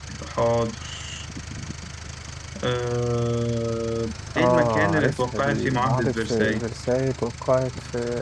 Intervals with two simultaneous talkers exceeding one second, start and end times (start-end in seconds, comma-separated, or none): 4.4-6.6